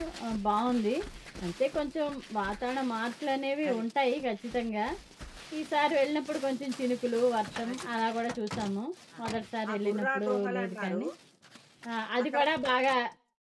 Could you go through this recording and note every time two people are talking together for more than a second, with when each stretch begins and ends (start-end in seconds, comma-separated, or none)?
9.7-11.0